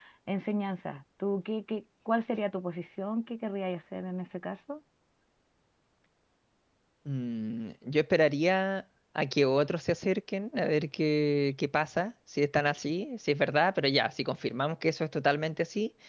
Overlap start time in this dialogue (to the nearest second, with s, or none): none